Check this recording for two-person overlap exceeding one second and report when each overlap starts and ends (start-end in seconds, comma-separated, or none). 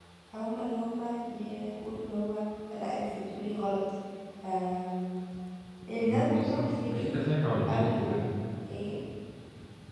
6.0-7.2